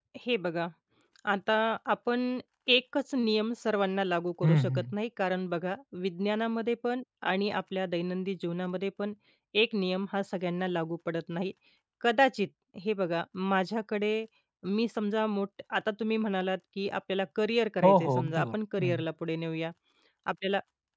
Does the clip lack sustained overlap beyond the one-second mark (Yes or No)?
No